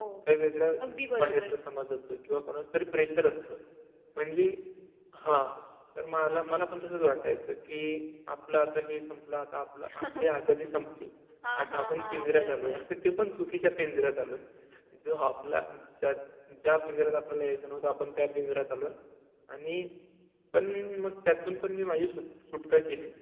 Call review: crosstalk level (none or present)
present